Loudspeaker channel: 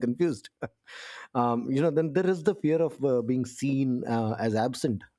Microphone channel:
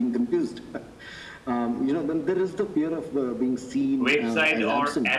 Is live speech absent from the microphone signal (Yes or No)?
No